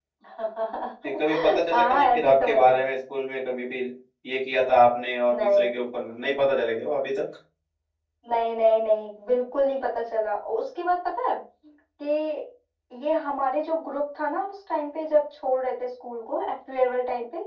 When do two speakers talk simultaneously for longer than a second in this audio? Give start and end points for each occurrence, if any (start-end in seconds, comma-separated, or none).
1.0-2.8